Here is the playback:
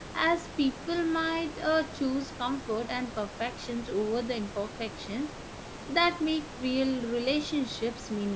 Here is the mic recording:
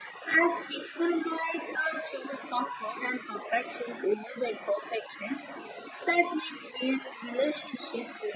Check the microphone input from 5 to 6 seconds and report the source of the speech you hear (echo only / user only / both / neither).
echo only